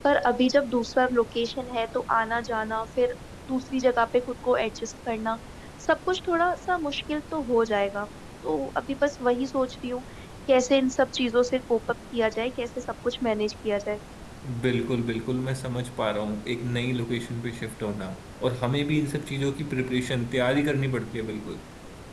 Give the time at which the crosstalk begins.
none

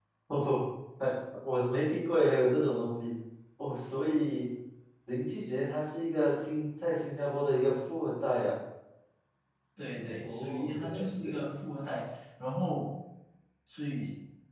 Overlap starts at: 10.2 s

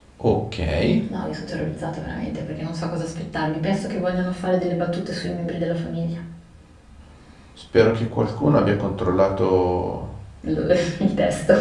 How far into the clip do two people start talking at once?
none

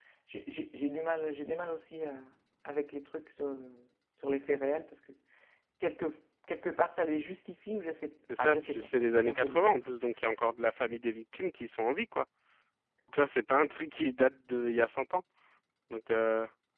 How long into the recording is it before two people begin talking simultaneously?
8.3 s

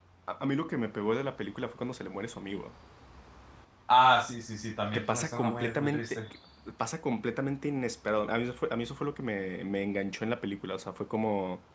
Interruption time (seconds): 4.9 s

